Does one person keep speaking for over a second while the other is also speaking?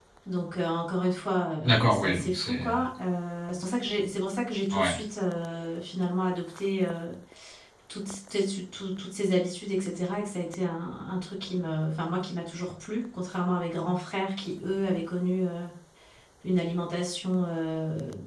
Yes, from 1.6 s

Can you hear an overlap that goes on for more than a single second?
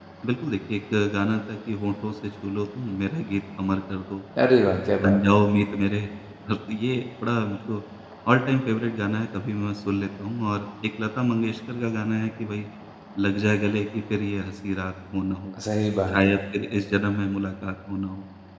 No

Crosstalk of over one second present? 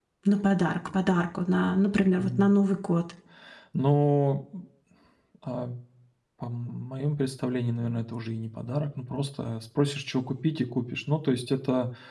No

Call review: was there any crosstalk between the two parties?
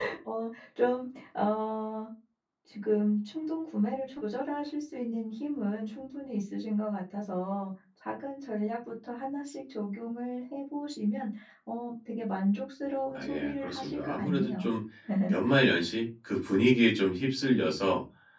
Yes, from 13.2 s

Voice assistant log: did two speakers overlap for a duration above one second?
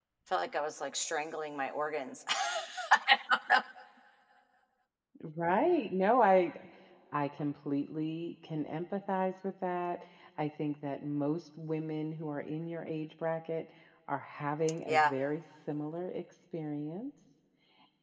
No

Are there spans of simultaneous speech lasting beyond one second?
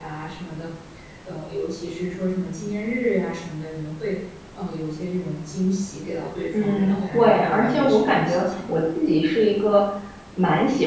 Yes, from 6.5 s

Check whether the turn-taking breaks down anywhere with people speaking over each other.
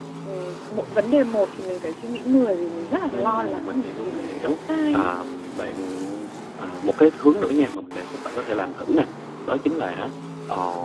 Yes, from 3.1 s

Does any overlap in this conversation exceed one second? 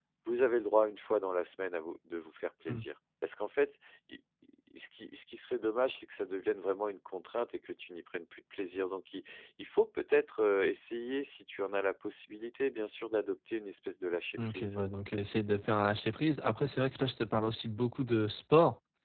No

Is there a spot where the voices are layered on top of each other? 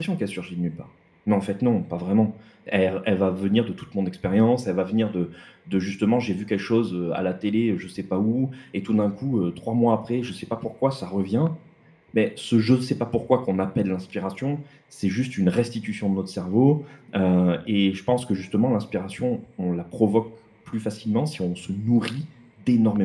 No

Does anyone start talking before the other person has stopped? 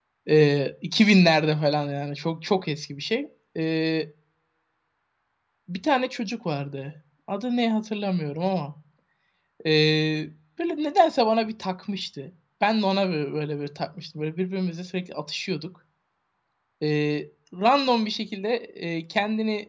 No

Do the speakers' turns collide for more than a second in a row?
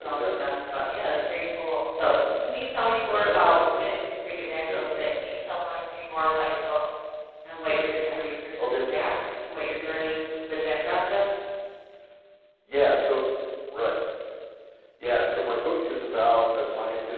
No

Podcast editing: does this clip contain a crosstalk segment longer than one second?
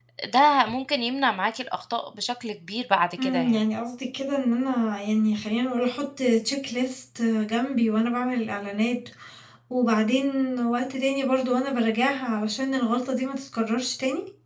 No

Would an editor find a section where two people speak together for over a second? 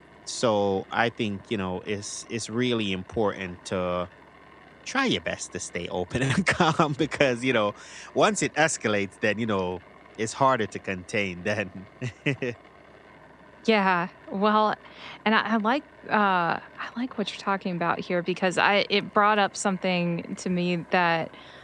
No

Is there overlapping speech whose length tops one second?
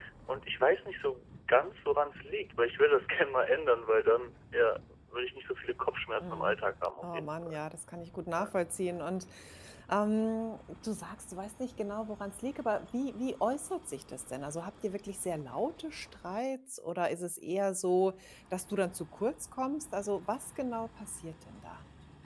No

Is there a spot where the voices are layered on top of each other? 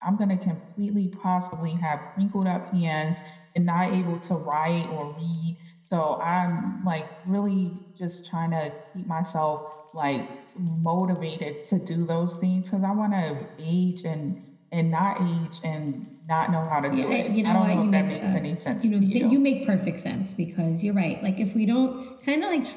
Yes, from 16.9 s

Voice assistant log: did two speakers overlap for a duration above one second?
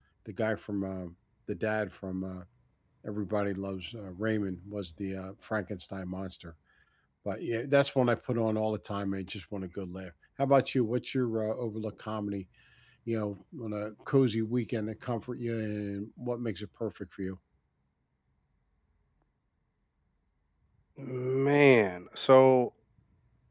No

